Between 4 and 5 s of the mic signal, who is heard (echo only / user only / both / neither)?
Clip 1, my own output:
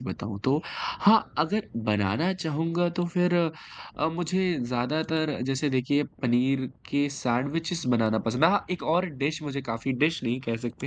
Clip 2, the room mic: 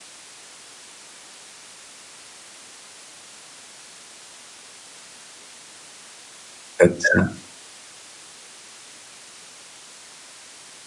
neither